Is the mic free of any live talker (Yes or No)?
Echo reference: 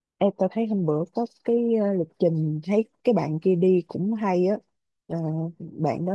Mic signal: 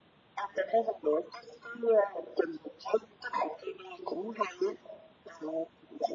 Yes